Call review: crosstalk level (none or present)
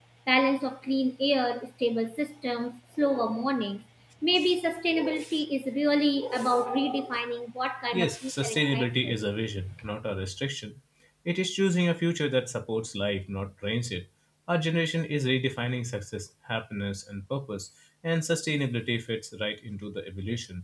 present